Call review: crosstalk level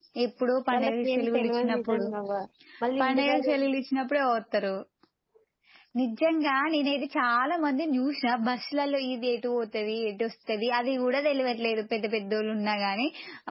present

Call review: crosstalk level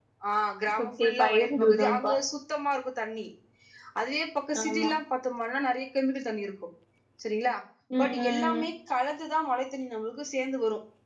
present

